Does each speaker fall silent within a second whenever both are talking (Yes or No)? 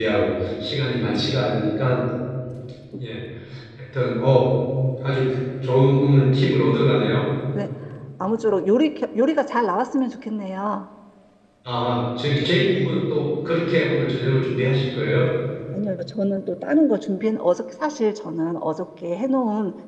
Yes